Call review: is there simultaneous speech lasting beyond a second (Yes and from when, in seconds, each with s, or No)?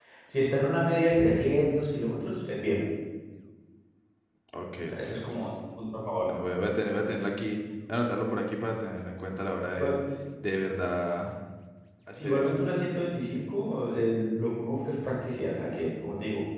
No